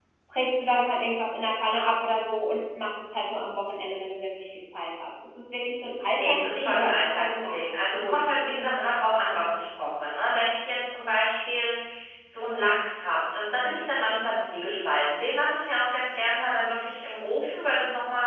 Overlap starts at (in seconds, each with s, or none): 6.2 s